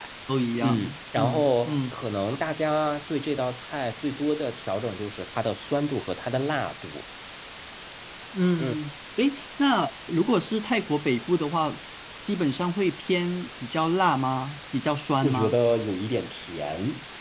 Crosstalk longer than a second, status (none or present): present